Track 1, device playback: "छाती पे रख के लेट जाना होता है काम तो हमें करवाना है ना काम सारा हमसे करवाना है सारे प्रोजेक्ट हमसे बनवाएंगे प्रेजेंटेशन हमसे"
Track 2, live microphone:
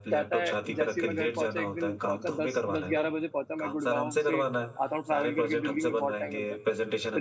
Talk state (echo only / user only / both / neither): both